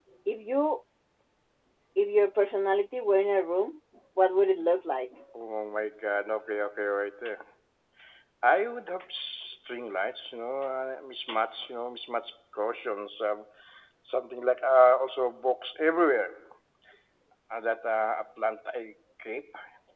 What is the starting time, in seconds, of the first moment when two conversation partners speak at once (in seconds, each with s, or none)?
none